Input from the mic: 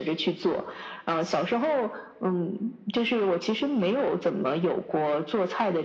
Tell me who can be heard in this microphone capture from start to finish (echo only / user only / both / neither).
echo only